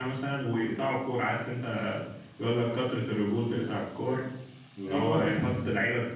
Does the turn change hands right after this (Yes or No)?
No